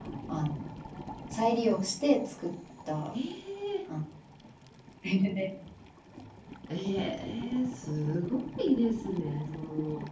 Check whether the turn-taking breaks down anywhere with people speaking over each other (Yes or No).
No